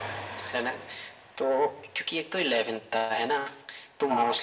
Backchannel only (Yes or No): Yes